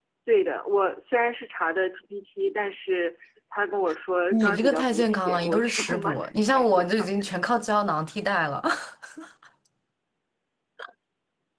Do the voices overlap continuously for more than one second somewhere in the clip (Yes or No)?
Yes